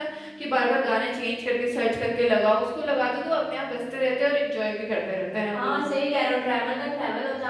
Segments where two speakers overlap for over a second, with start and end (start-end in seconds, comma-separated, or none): none